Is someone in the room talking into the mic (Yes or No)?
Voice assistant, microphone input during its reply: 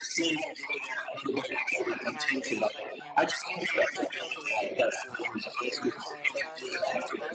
Yes